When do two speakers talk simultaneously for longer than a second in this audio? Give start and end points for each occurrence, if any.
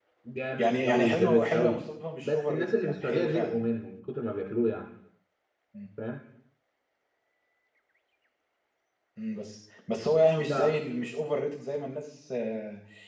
0.6-1.8, 2.2-3.6

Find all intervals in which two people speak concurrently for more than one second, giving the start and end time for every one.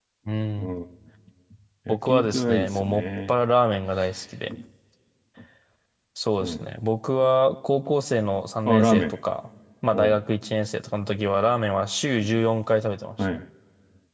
1.9-3.3

